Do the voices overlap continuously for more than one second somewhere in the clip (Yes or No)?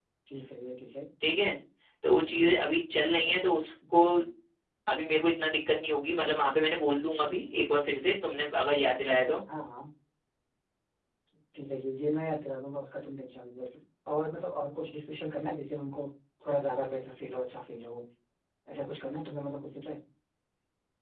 No